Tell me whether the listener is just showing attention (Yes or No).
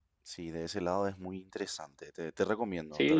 No